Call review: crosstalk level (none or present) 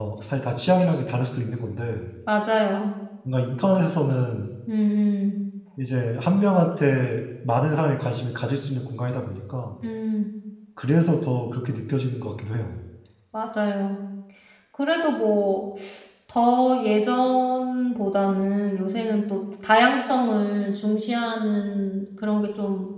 none